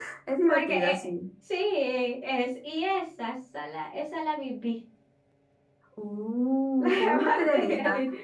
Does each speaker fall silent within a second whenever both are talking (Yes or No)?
No